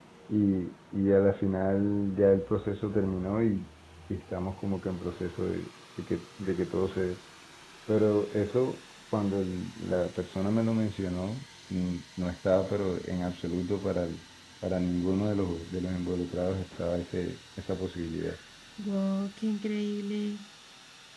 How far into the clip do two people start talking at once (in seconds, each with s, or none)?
none